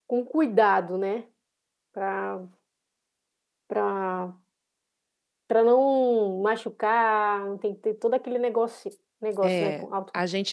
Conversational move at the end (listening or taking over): taking over